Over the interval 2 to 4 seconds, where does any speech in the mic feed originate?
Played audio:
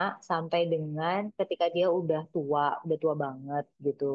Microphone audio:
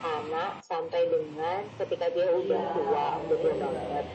both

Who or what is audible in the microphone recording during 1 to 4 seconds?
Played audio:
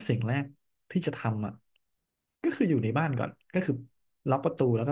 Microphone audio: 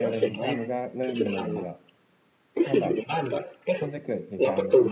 both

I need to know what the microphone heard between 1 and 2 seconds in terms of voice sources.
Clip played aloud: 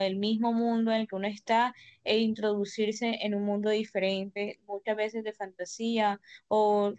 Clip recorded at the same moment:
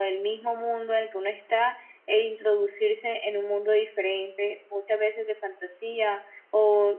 echo only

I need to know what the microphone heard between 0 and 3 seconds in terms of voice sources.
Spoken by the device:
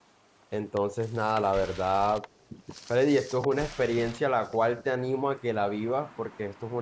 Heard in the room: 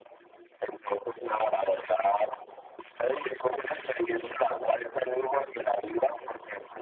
echo only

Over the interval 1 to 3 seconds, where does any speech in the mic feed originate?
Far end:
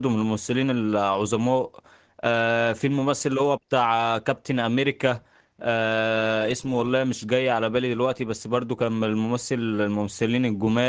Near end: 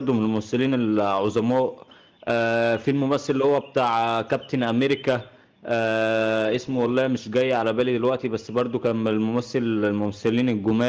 echo only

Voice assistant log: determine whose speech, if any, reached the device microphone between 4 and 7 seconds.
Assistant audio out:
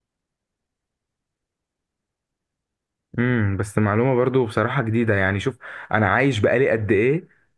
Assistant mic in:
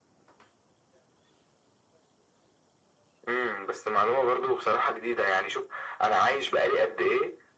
echo only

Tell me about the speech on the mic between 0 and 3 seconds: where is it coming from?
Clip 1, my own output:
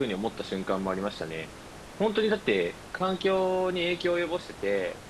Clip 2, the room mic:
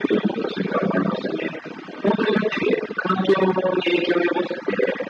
echo only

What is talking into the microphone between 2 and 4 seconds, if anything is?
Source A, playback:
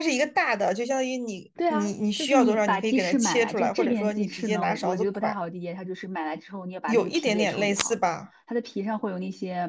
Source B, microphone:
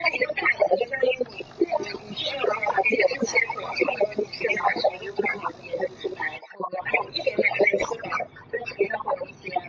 echo only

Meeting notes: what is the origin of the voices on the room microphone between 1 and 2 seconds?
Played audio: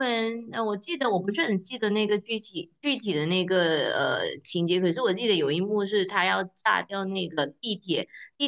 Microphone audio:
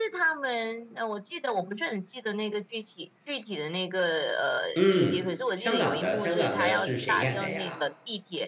echo only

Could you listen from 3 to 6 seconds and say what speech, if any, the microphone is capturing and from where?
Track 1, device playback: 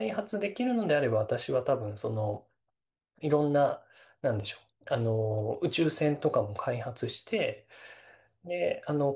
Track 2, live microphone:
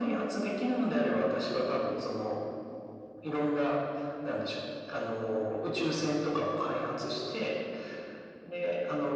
echo only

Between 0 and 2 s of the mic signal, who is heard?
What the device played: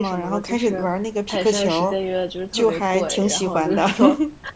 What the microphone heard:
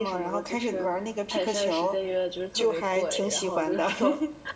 echo only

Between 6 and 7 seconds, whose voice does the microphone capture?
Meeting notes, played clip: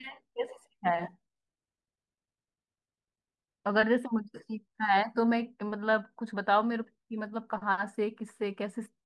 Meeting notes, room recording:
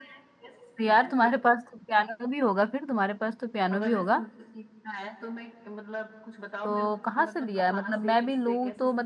both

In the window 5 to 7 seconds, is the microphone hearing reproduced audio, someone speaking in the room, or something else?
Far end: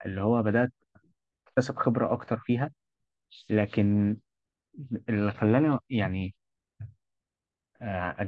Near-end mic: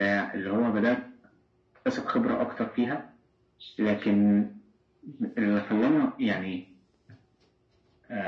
echo only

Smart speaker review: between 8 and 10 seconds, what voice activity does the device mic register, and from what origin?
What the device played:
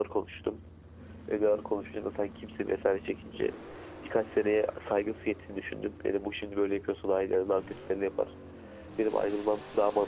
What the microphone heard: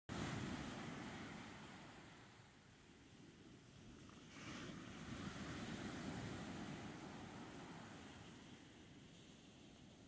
neither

